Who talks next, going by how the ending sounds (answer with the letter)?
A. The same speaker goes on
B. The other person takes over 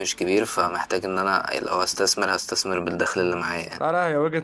B